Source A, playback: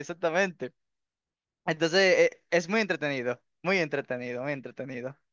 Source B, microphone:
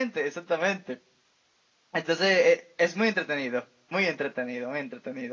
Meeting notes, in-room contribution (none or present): none